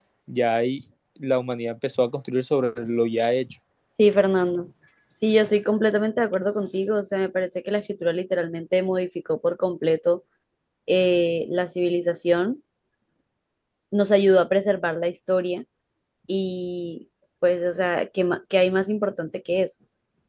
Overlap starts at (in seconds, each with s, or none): none